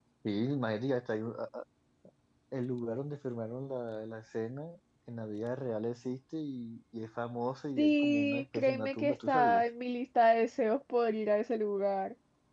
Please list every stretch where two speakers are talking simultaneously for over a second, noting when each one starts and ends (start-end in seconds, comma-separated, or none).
7.8-9.6